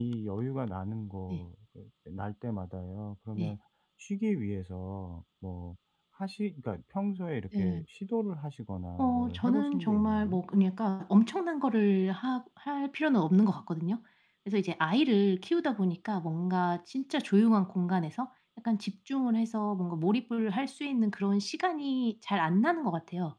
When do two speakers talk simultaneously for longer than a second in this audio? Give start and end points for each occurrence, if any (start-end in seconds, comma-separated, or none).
9.0-10.4